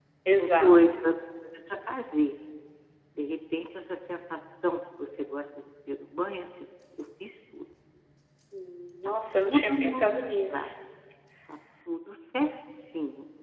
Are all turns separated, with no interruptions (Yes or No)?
No